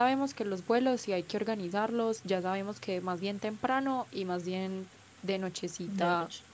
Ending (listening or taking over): listening